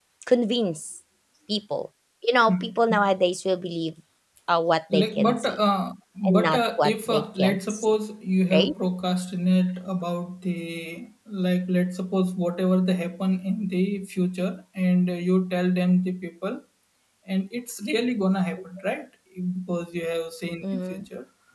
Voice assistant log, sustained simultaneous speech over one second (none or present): present